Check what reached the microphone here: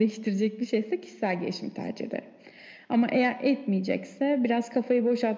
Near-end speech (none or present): none